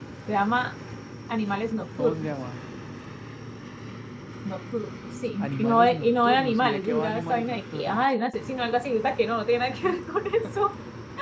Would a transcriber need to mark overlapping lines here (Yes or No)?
Yes